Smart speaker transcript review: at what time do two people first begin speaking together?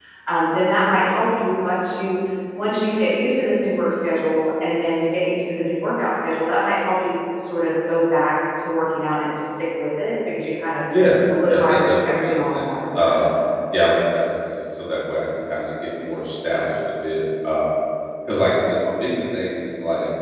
10.9 s

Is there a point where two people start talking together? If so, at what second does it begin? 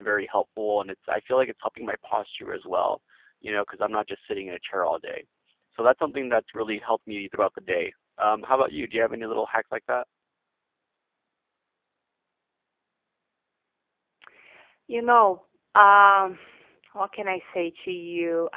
none

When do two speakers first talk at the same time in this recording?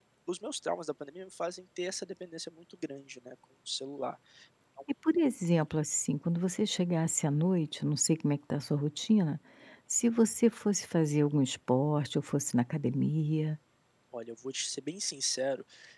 none

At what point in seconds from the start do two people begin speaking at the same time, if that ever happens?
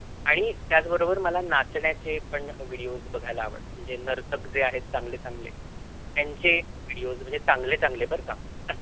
none

